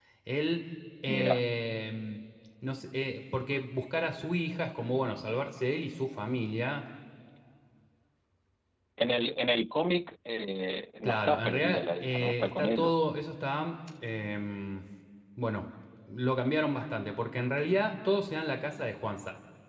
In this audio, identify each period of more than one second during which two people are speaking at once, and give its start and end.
11.0-13.1

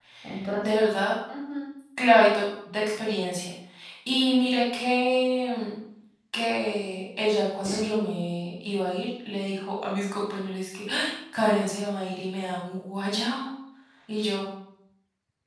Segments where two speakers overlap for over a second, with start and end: none

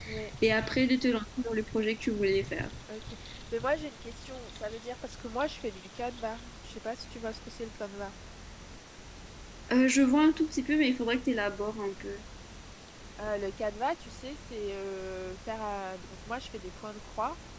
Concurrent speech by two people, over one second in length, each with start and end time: none

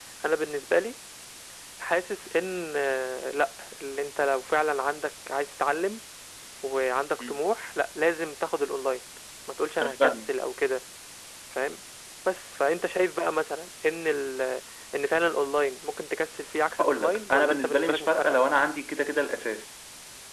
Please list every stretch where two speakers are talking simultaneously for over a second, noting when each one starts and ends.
16.8-18.4

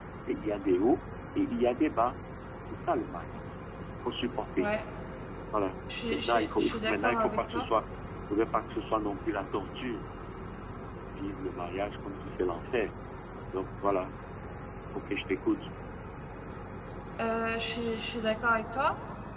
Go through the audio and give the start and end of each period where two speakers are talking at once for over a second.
6.1-7.6

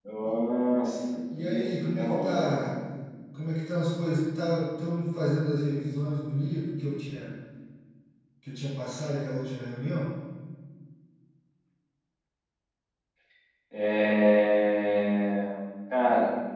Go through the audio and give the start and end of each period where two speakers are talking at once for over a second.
1.4-2.8

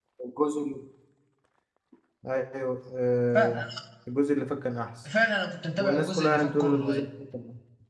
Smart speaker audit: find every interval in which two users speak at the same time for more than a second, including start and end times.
5.8-7.0

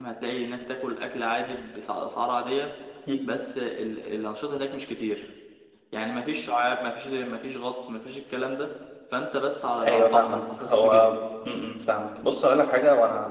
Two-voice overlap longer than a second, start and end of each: 9.8-11.2

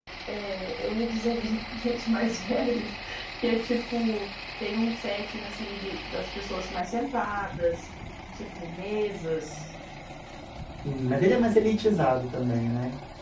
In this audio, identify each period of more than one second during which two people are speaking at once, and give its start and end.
none

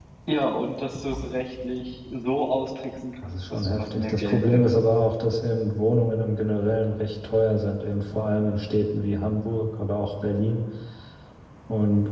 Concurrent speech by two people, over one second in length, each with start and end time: 3.2-4.6

